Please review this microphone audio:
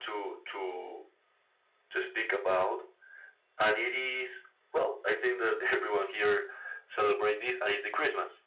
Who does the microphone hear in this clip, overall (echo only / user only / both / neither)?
echo only